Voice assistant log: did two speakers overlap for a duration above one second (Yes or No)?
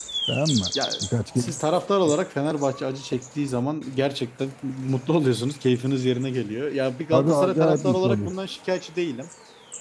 Yes